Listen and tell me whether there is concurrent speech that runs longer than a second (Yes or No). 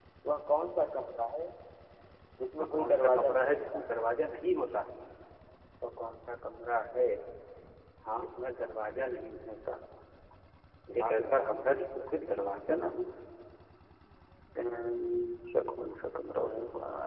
Yes